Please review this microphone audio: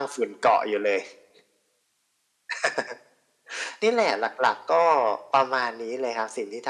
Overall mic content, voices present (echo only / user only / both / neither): echo only